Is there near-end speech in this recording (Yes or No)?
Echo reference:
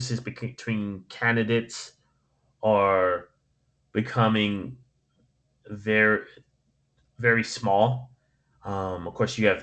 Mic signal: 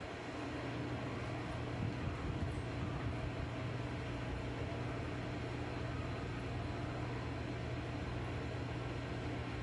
No